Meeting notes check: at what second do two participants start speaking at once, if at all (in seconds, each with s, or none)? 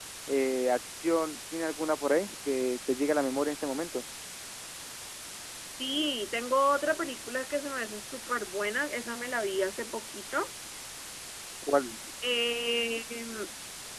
none